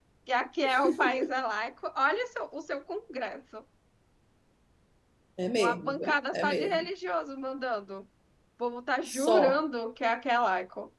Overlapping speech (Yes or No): Yes